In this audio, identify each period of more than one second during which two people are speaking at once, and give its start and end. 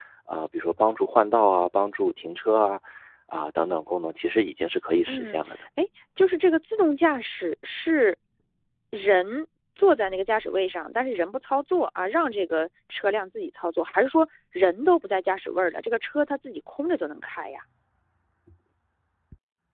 none

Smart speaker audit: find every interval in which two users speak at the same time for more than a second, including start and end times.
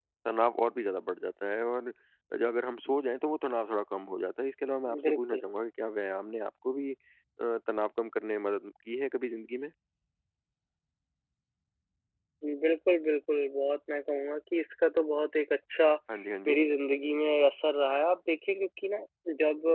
none

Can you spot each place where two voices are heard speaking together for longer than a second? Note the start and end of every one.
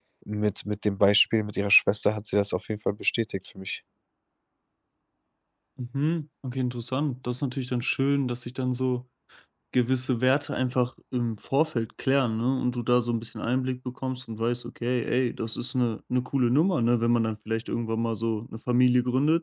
none

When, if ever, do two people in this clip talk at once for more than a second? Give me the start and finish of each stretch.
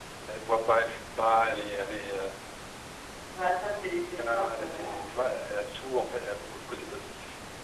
4.2-5.9

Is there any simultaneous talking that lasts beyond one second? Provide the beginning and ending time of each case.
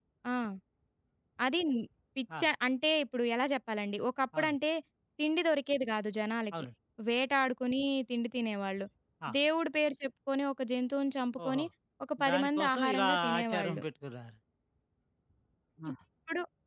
12.3-13.8

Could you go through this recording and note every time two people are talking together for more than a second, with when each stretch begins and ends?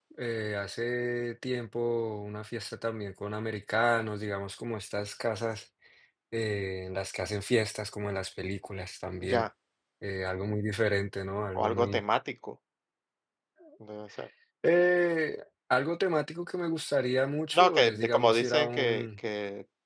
17.5-19.2

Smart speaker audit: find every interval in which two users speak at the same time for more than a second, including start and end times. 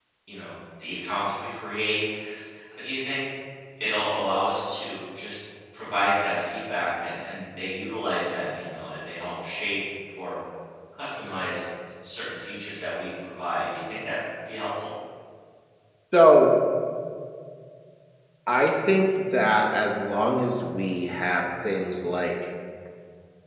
none

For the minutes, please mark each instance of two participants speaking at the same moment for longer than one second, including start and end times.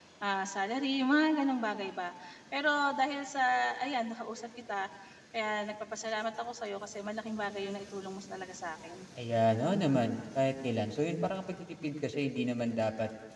none

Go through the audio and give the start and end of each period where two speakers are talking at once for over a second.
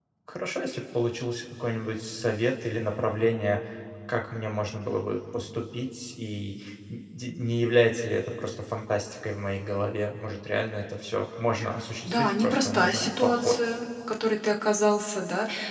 12.1-13.6

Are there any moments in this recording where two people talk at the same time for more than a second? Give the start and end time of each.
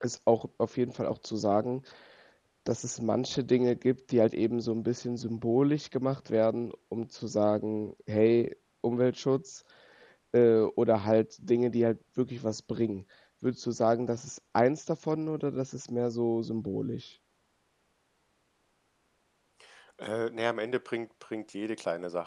none

